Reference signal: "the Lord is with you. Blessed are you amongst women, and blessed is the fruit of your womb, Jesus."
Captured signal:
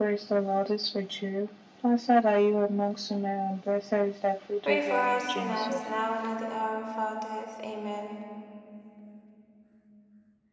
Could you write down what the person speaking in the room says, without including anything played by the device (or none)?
pray for us sinners, now and at the hour of our death. Amen.